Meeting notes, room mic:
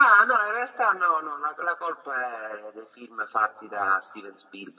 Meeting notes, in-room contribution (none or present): none